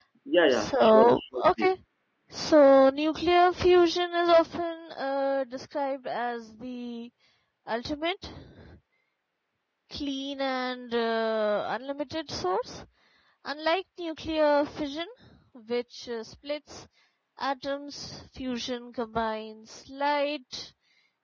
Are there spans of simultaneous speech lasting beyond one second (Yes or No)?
Yes